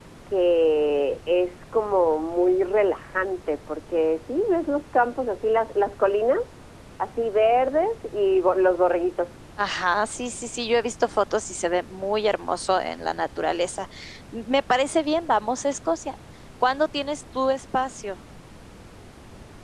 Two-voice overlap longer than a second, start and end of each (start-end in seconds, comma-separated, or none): none